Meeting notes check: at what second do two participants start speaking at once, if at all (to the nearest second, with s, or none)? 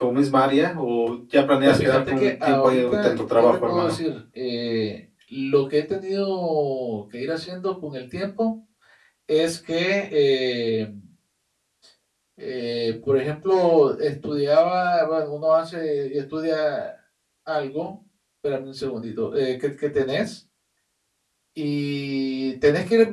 2 s